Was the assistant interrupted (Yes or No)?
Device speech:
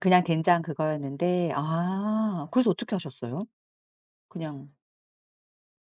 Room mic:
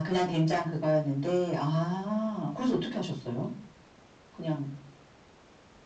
No